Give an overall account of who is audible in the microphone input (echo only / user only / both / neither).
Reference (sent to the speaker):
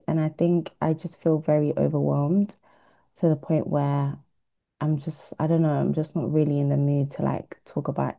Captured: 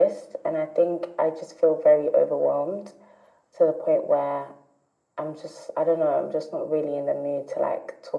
echo only